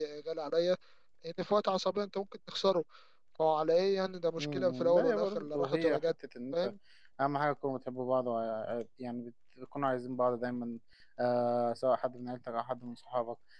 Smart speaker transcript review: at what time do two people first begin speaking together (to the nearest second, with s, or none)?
4 s